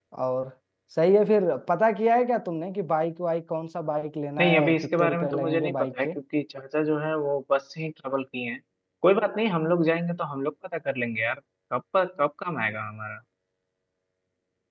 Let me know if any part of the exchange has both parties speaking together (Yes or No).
Yes